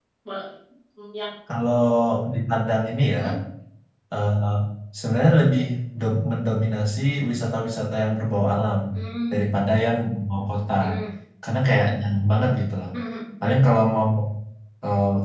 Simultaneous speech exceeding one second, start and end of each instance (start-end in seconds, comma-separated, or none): none